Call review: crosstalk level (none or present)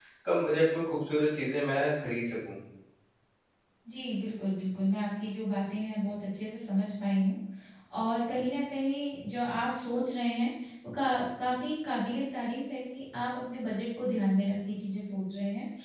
none